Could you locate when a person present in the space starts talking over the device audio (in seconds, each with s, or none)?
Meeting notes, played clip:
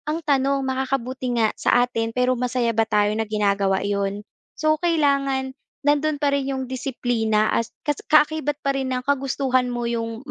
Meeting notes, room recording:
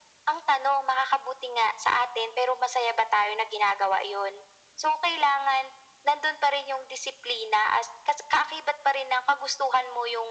none